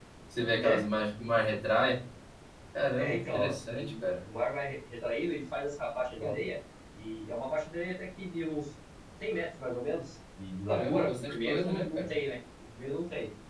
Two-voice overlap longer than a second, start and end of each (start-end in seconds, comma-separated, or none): 3.0-4.2, 10.7-12.0